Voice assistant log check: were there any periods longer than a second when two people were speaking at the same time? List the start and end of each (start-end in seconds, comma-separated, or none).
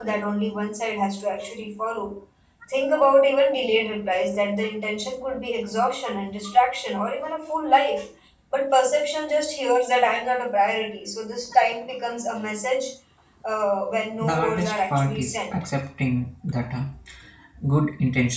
14.2-15.5